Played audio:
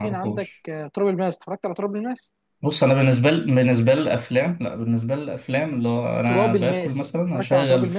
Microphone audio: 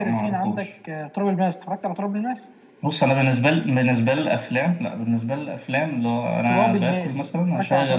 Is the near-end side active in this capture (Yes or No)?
No